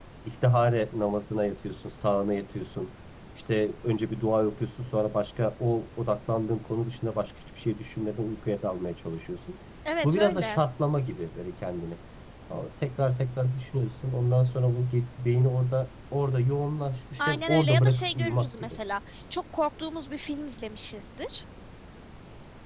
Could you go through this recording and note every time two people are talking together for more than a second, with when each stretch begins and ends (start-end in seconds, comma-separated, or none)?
17.2-18.8